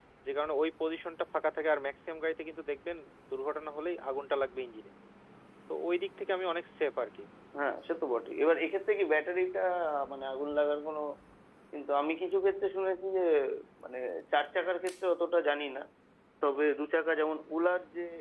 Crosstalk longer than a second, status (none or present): none